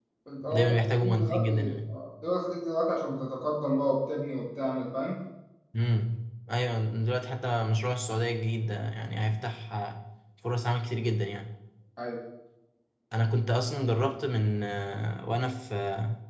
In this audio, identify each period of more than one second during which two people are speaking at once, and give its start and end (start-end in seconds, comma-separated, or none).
0.5-1.8